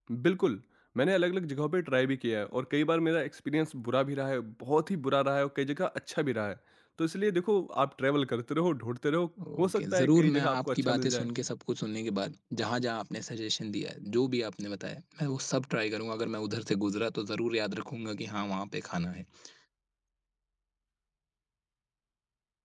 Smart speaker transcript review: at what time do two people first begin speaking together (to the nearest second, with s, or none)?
9 s